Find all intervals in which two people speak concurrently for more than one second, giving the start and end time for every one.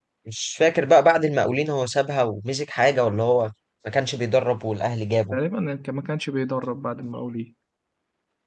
none

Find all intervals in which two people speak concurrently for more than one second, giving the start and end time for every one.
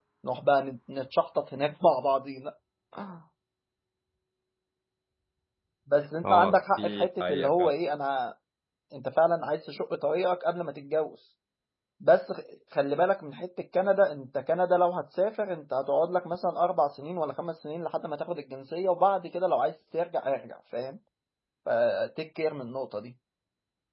6.2-7.7

